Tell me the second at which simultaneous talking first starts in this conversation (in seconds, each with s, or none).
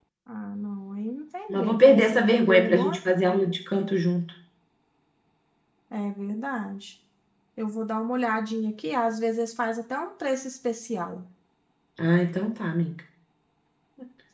1.5 s